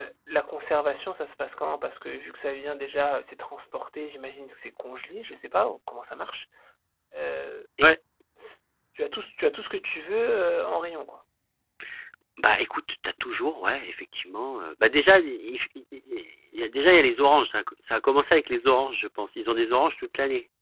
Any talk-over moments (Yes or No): No